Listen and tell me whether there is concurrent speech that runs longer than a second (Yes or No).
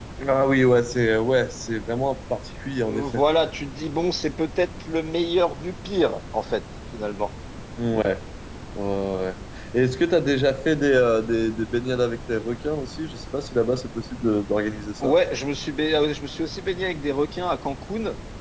No